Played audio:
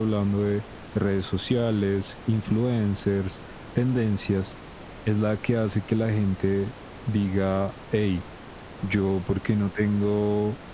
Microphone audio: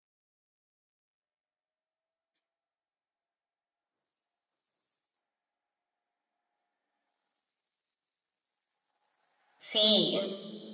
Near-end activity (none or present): present